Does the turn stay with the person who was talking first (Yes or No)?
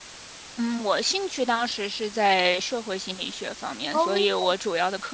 Yes